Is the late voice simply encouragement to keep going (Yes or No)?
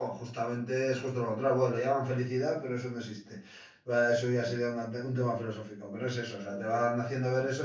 Yes